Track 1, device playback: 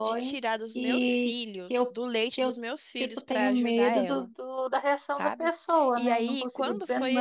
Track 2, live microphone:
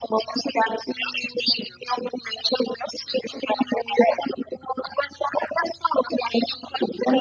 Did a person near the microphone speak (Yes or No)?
No